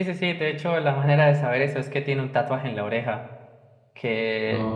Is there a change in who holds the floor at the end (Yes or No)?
No